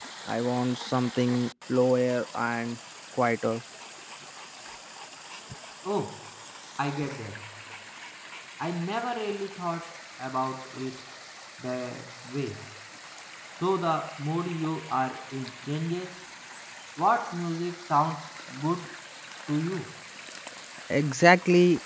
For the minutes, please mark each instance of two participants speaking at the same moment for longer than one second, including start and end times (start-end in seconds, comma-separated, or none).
none